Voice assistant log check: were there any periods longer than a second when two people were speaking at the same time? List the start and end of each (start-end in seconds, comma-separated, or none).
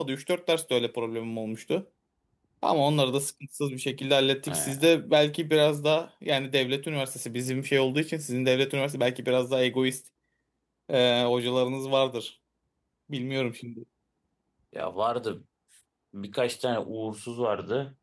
none